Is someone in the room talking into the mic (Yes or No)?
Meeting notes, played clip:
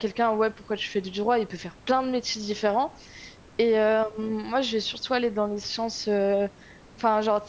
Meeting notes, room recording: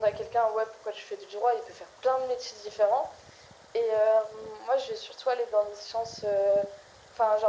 No